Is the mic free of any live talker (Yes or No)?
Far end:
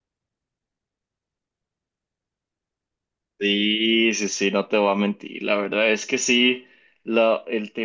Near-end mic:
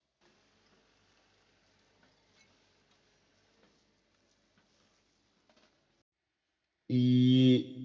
No